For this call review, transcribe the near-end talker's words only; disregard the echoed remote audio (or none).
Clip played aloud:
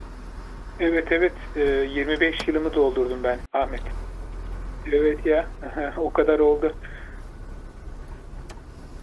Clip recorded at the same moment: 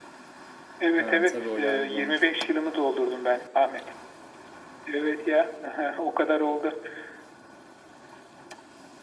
Ha tabii o yardımcı olmuştur.